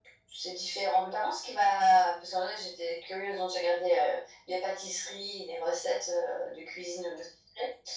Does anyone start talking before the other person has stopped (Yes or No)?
No